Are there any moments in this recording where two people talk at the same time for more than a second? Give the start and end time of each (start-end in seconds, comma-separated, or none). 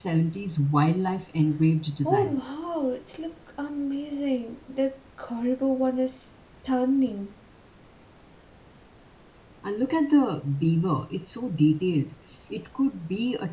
none